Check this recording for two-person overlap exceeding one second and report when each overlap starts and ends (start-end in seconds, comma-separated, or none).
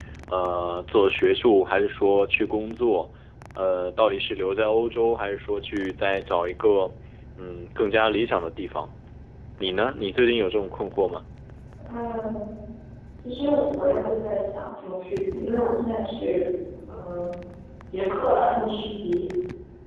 none